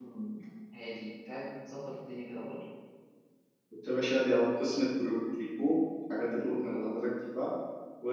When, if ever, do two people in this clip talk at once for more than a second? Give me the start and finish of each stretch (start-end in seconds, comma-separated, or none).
none